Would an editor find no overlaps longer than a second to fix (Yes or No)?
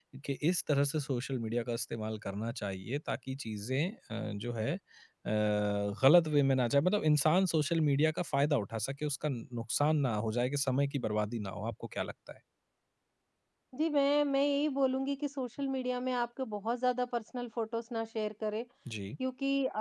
Yes